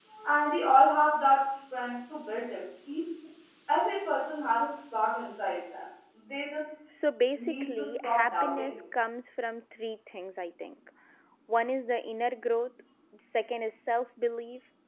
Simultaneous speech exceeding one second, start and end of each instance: 7.3-8.7

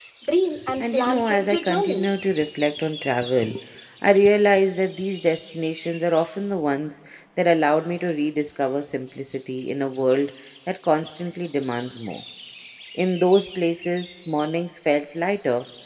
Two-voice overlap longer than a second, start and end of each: 0.8-2.2

